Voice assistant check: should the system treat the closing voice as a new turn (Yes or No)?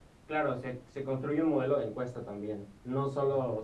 No